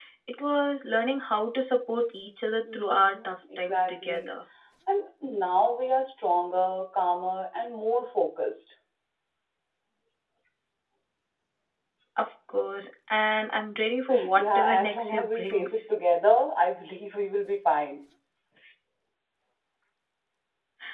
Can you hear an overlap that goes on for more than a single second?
Yes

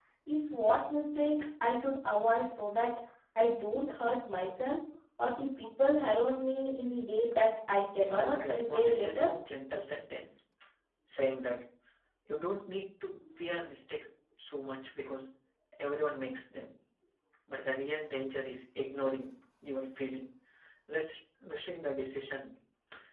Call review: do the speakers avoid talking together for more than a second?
No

